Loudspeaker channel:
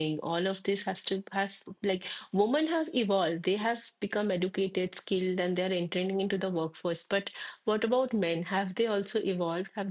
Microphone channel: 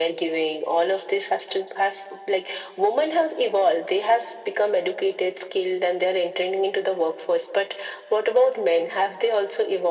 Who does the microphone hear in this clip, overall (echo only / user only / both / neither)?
echo only